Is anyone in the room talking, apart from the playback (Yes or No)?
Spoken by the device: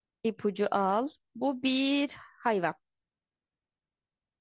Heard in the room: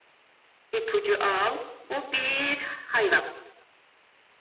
No